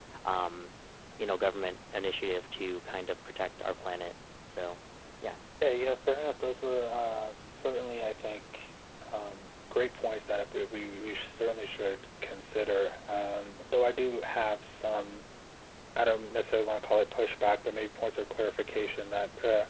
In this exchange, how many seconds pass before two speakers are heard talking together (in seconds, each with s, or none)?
none